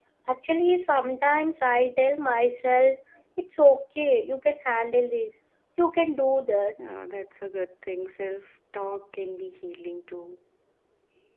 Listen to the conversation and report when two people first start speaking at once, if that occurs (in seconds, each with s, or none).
none